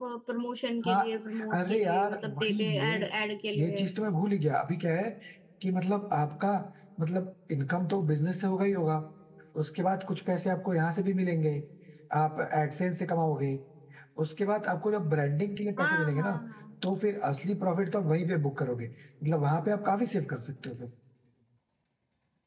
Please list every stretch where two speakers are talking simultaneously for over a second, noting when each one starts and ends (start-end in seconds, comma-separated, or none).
1.5-3.0